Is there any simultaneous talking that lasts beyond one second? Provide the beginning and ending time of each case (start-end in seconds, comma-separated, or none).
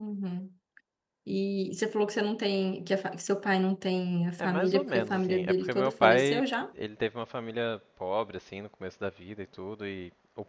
4.4-6.4